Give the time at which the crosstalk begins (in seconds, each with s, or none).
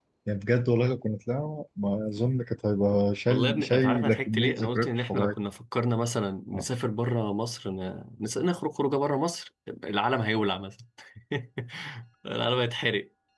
3.3 s